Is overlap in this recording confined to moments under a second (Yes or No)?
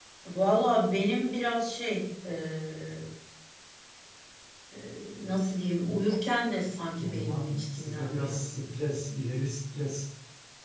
No